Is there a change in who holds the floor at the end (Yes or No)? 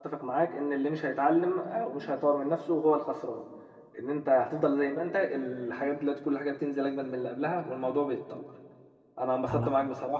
No